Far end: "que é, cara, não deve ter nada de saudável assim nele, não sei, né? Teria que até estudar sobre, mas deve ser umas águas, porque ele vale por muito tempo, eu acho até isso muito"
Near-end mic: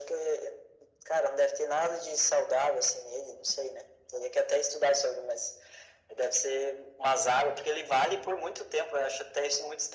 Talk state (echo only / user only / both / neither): echo only